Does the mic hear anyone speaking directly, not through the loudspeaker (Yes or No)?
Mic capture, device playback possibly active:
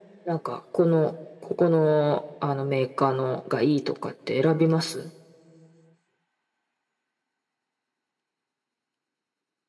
No